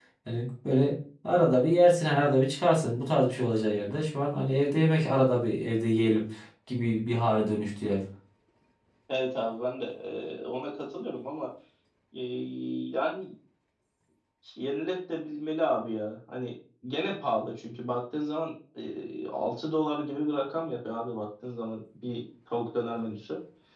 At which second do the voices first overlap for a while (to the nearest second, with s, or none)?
none